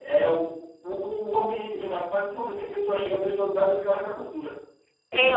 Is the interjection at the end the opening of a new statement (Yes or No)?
Yes